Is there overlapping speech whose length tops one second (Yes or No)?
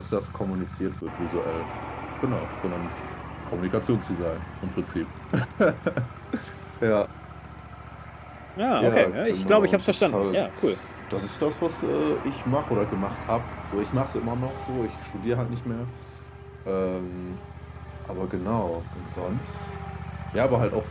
Yes